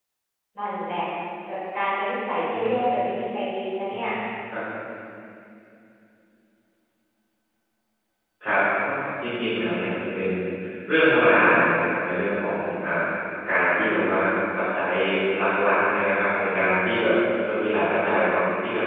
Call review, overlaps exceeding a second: none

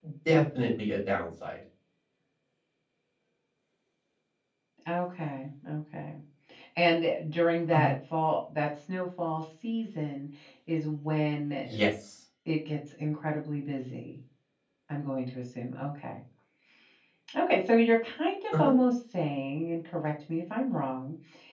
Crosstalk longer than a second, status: none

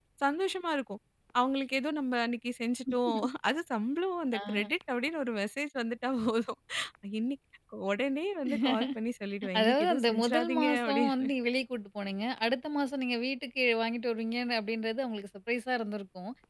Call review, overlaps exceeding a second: present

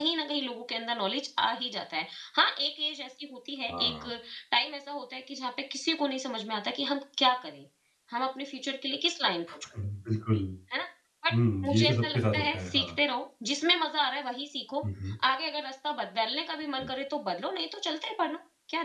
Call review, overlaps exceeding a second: present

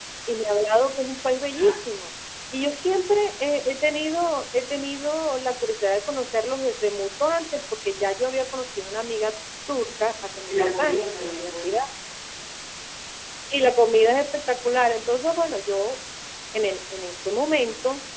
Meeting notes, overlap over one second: present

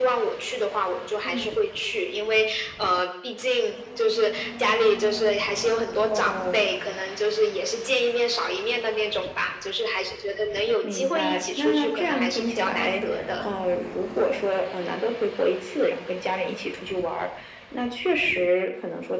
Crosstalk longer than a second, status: present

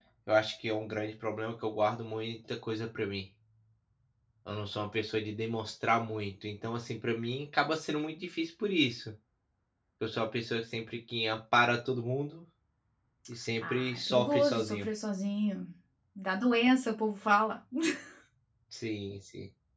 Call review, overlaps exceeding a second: present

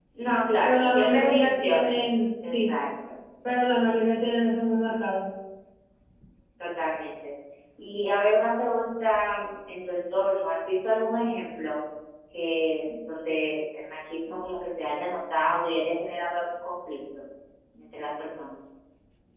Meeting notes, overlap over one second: present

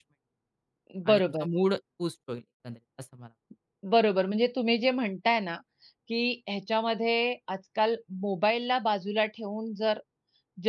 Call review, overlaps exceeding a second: none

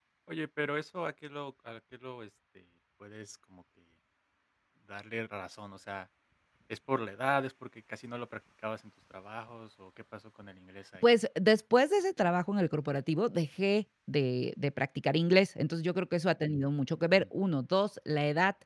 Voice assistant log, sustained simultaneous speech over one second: none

